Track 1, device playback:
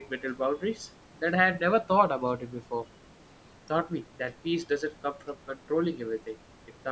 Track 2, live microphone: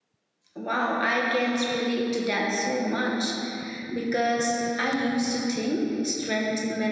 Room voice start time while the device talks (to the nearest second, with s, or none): 1 s